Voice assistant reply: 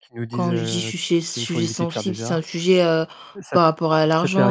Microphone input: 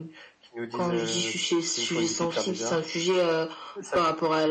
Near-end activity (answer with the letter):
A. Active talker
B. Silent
B